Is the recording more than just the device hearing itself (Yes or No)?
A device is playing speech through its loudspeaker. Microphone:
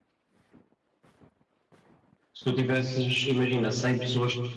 Yes